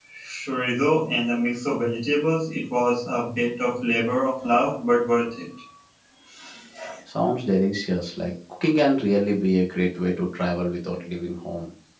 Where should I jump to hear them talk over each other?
none

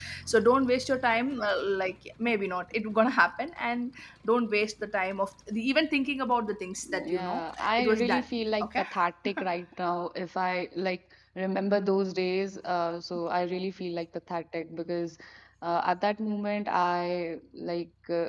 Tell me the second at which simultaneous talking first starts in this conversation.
7 s

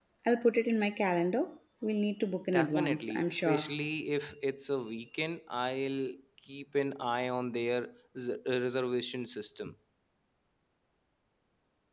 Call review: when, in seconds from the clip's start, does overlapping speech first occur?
3 s

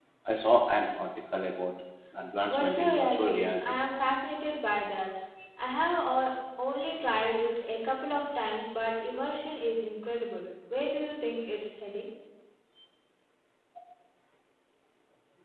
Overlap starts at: 3 s

